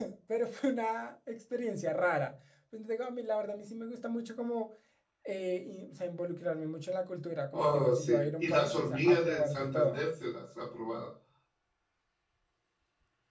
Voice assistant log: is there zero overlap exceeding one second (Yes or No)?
No